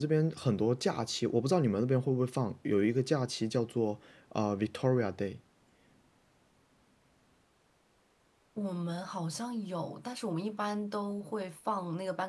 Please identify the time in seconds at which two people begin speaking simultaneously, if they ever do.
none

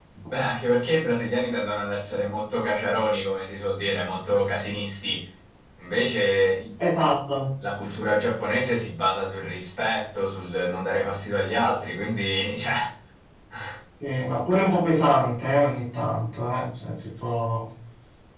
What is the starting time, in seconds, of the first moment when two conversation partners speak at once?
none

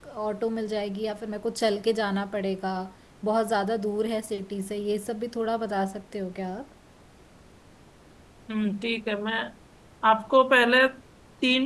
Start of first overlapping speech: none

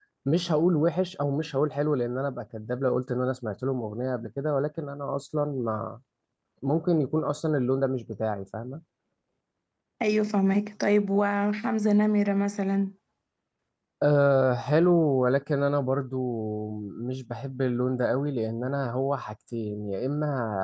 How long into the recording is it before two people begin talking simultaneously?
none

